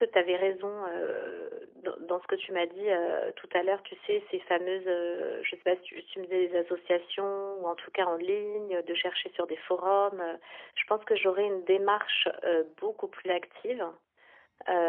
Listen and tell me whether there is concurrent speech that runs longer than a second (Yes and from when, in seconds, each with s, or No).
No